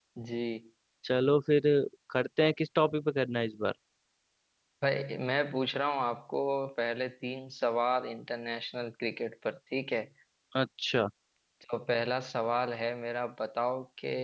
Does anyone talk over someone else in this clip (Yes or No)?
No